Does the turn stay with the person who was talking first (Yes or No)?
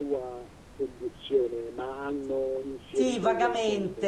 No